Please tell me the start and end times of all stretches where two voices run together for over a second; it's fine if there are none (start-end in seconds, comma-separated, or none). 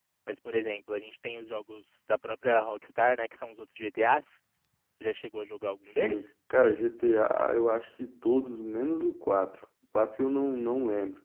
none